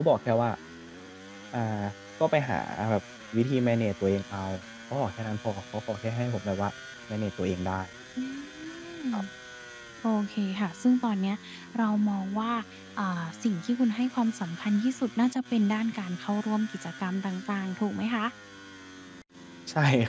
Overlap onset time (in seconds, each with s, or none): none